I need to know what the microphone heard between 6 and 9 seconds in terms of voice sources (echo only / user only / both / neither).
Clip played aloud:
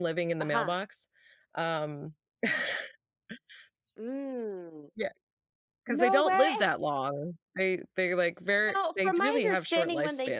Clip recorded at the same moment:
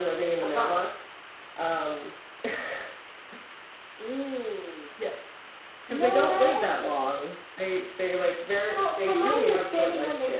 echo only